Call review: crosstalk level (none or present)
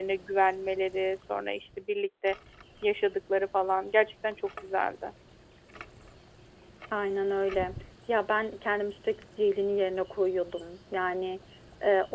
none